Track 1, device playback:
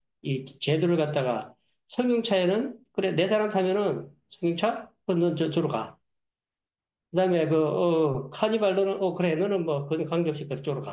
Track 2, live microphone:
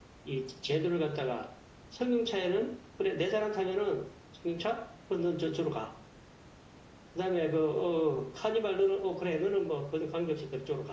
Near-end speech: none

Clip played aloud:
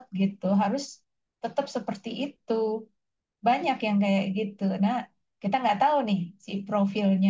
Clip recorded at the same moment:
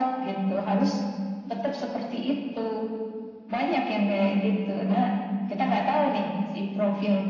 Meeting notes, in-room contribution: none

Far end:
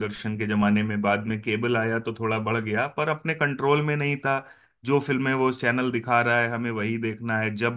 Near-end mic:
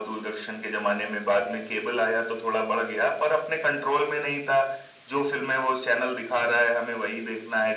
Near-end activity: none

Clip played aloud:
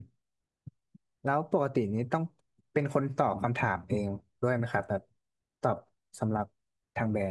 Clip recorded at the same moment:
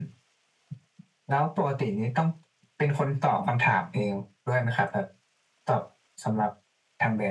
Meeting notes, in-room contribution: none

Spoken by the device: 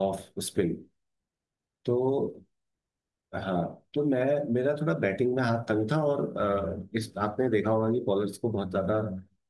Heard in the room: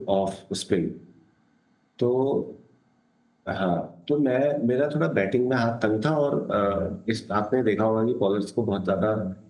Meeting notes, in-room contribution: none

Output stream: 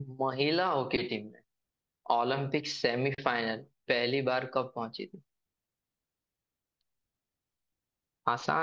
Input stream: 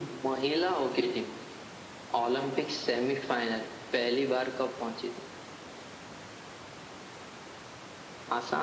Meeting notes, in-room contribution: none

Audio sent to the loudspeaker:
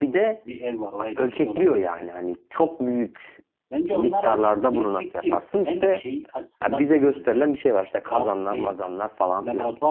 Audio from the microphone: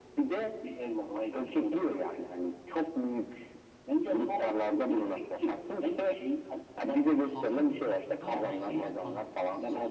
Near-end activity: present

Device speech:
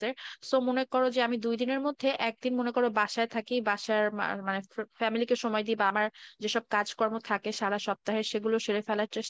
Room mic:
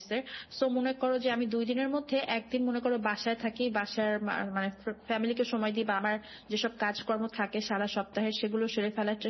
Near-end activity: none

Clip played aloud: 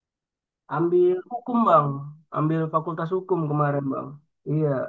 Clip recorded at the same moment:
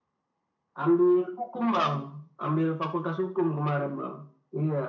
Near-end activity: none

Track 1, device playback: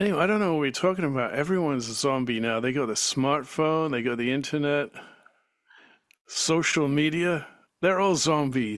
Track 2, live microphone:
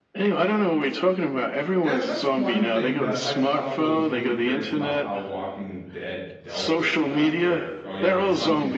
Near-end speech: present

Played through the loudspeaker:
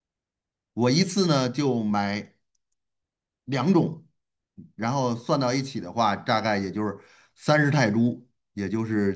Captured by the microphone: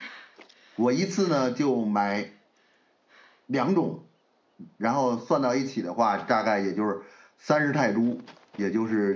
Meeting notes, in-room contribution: none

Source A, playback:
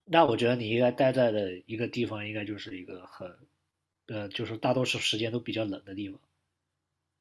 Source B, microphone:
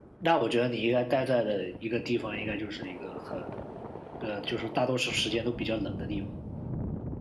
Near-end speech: none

